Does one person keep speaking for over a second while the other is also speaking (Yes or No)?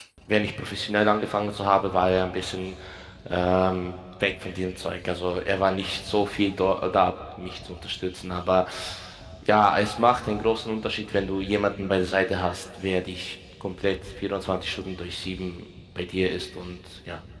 No